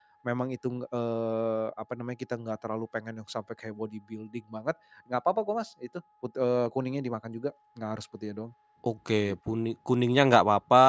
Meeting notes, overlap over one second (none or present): none